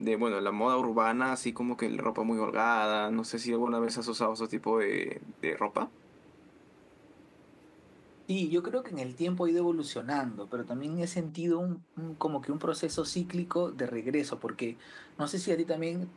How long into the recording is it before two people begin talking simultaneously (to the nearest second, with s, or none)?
none